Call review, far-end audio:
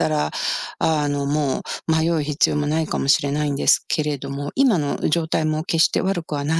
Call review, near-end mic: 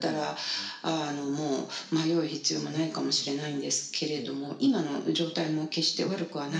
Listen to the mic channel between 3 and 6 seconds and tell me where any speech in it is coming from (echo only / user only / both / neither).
both